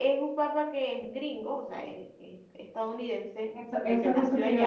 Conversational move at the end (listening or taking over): taking over